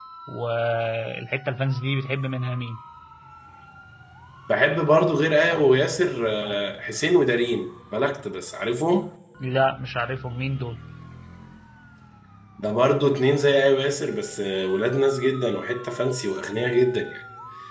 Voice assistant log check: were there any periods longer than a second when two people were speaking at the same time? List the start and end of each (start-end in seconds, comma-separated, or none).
none